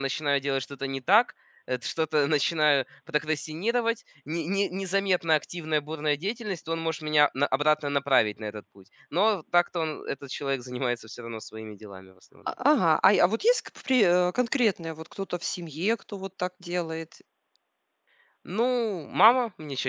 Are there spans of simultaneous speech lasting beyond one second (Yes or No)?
No